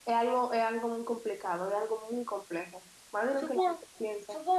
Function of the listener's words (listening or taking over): taking over